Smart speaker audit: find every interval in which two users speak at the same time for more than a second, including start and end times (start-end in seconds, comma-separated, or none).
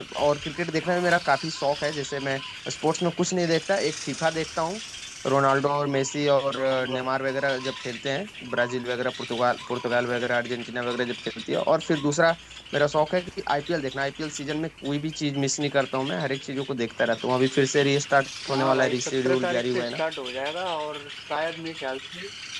18.5-20.0